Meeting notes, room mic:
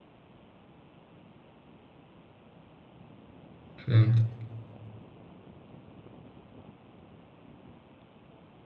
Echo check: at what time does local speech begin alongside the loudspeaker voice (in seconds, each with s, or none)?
3.8 s